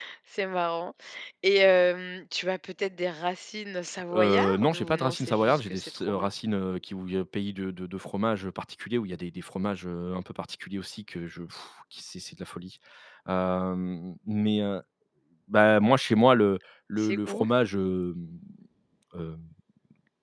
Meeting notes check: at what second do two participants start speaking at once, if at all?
4.1 s

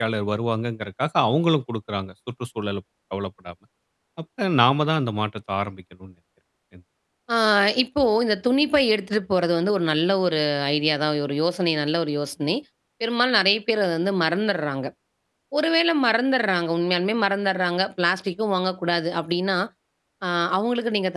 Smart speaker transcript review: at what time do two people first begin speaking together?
none

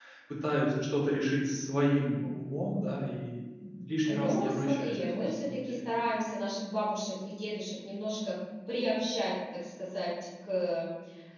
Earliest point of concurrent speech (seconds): 4.0 s

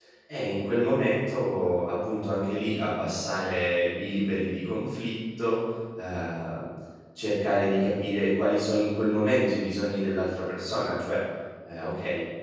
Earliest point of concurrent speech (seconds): none

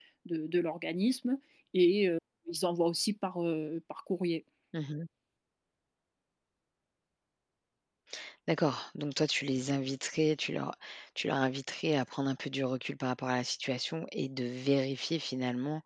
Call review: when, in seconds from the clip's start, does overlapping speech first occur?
none

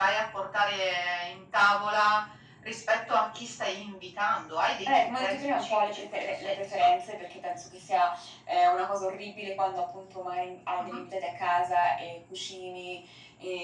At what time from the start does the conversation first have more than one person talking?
4.9 s

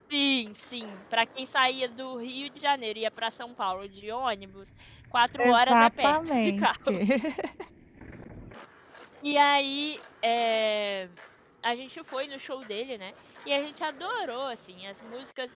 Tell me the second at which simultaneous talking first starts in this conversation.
5.4 s

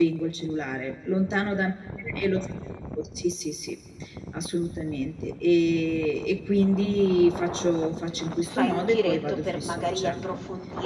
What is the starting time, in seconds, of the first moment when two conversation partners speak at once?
8.4 s

